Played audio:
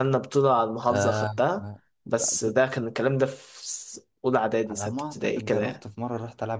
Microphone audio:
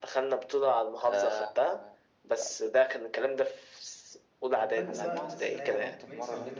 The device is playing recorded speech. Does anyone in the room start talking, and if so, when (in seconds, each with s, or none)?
4.5 s